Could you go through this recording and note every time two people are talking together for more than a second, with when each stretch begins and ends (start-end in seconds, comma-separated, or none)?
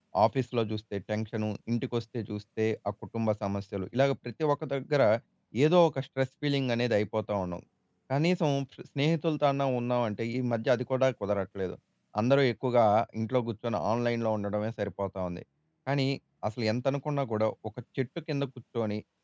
none